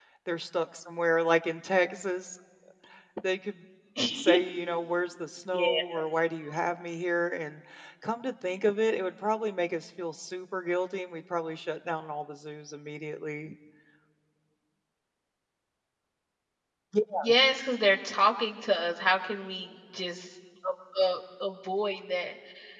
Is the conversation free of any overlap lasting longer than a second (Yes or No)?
Yes